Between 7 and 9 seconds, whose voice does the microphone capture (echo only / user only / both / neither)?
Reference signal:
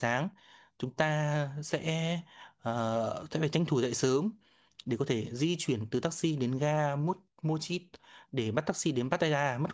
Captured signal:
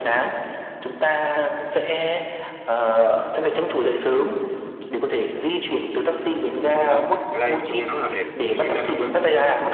both